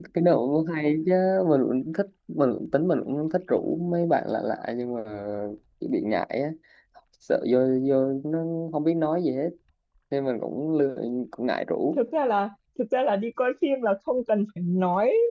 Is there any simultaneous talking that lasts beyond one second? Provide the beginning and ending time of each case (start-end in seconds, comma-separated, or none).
none